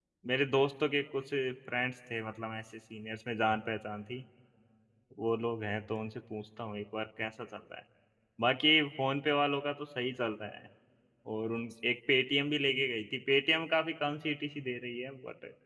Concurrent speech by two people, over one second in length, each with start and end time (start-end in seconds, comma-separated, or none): none